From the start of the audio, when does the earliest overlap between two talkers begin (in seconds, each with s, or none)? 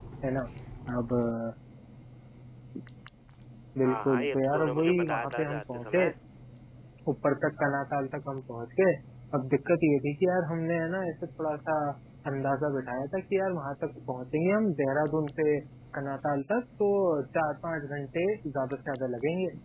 3.9 s